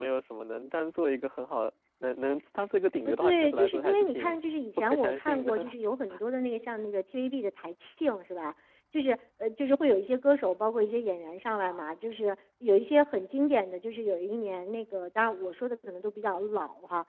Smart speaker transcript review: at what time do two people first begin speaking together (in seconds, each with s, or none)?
3.0 s